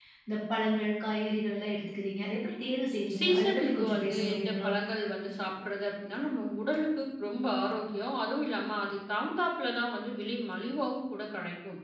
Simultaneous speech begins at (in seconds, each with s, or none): 3.1 s